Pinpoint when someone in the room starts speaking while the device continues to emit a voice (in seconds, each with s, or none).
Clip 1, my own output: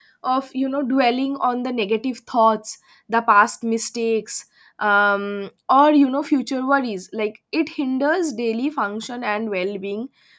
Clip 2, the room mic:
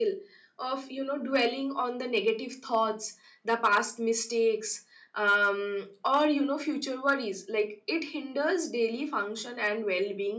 none